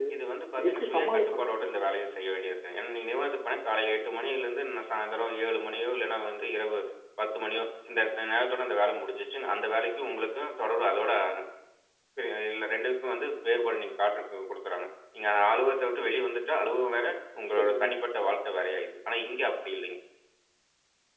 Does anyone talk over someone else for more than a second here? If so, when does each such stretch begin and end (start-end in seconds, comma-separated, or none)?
0.6-1.9